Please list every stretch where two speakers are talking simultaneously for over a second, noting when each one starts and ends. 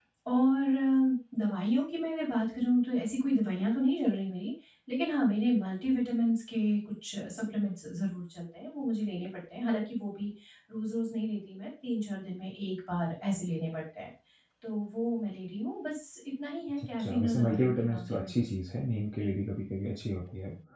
16.8-18.3

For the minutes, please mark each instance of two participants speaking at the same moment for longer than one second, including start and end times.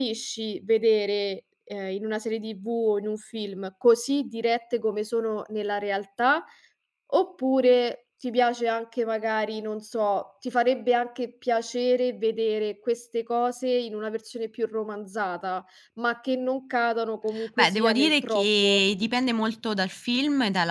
17.6-18.8

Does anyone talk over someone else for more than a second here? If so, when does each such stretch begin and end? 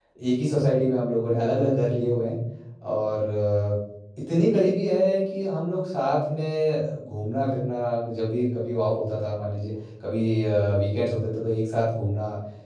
none

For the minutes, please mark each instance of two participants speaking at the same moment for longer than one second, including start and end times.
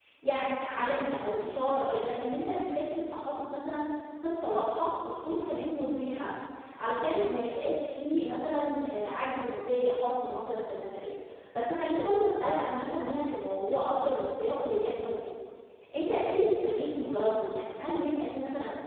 none

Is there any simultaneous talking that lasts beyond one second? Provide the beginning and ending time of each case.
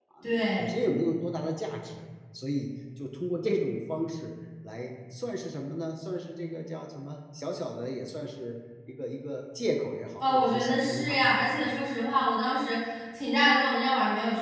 10.3-11.7

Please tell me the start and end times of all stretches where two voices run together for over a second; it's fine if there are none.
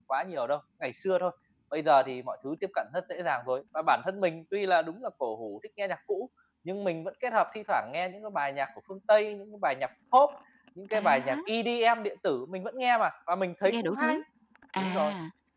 none

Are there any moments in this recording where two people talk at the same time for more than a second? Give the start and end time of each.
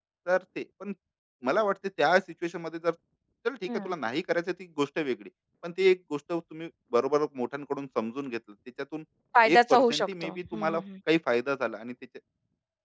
9.5-10.8

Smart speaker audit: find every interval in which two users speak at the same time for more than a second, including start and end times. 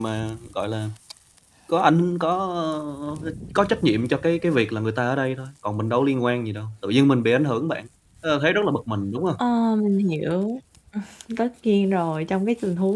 none

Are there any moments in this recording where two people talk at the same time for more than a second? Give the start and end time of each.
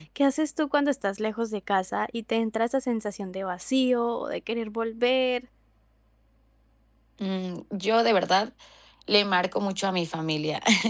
none

